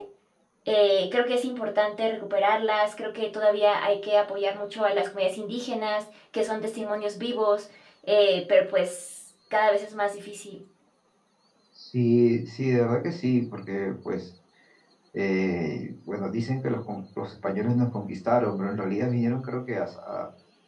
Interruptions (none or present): none